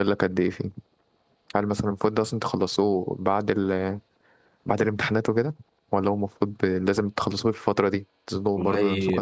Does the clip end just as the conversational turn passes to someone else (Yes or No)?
Yes